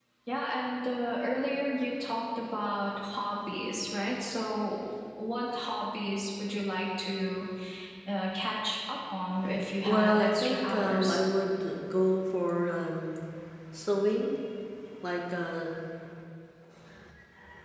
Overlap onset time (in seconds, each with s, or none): 9.8 s